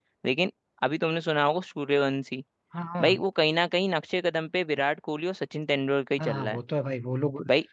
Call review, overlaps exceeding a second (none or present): none